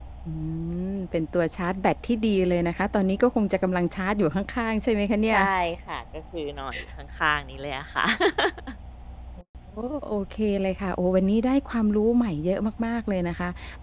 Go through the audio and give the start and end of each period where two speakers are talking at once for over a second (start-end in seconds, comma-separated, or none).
none